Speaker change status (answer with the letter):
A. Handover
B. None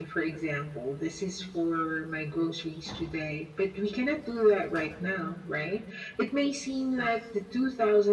B